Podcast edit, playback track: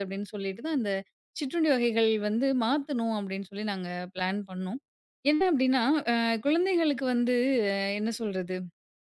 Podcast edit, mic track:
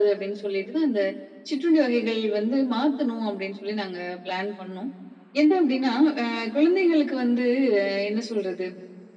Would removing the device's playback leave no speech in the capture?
Yes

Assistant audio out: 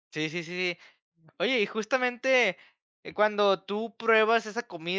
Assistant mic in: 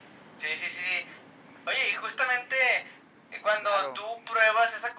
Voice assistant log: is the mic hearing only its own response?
No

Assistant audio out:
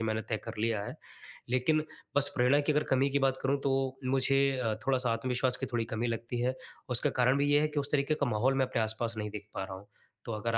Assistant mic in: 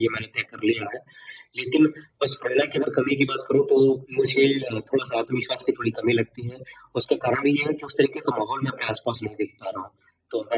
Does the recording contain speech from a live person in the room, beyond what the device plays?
No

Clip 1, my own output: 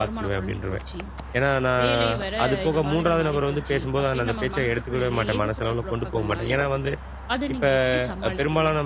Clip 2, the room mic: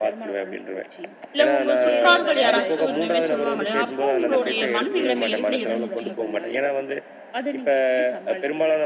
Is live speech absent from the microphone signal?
No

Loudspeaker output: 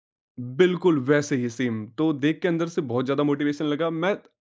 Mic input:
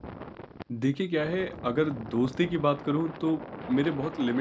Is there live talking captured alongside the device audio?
Yes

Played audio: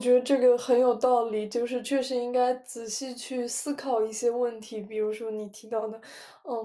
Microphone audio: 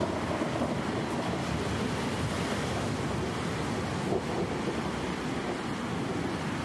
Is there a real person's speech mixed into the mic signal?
No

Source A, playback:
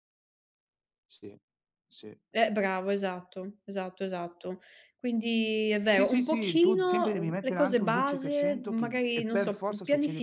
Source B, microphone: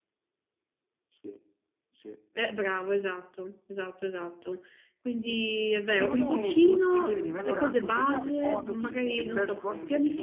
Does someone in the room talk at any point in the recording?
Yes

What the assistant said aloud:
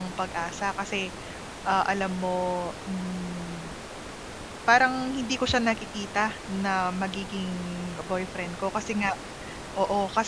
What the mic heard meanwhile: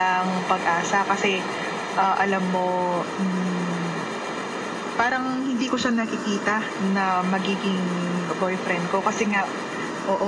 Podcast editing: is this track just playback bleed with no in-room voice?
Yes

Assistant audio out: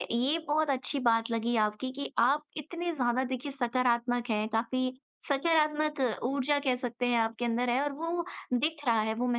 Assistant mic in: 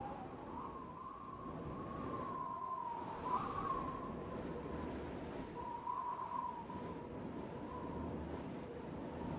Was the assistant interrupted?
No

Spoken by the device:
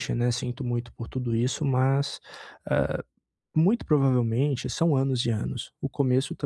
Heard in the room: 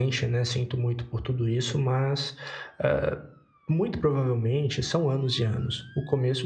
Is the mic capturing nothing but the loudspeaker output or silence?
Yes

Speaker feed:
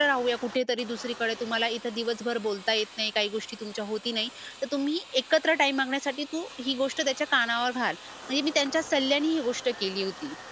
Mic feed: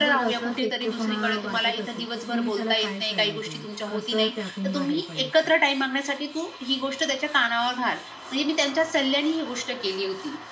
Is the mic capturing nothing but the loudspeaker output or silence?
No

